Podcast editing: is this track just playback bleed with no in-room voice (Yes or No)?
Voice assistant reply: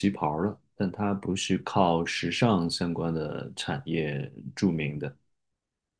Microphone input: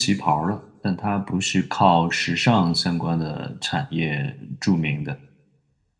Yes